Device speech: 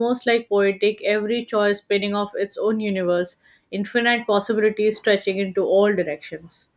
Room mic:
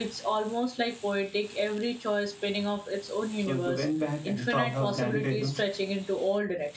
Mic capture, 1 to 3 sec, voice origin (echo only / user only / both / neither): echo only